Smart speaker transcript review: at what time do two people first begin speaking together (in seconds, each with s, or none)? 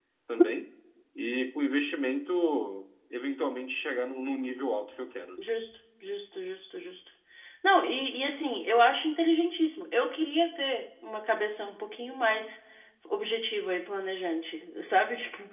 none